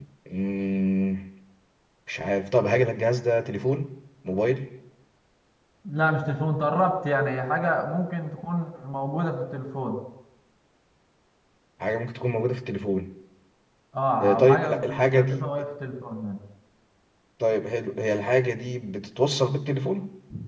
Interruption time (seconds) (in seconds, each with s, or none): 14.2 s